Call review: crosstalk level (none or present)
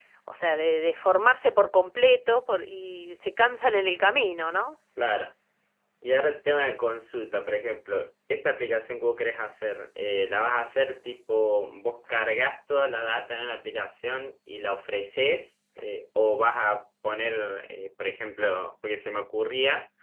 none